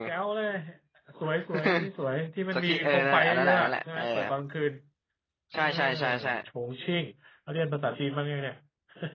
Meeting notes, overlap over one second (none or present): present